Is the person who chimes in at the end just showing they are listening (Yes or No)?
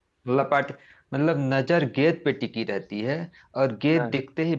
Yes